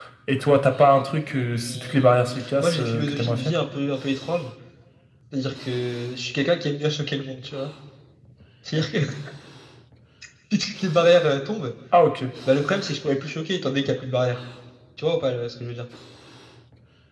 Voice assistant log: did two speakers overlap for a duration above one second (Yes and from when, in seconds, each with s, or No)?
Yes, from 1.6 s